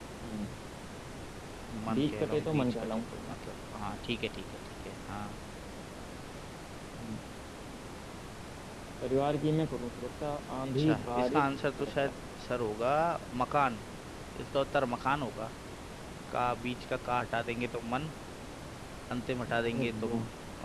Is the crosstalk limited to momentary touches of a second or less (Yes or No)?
No